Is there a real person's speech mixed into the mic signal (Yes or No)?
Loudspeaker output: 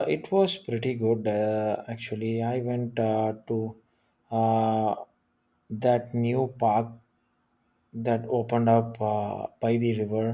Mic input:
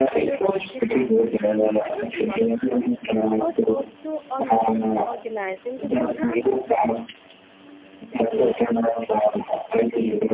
Yes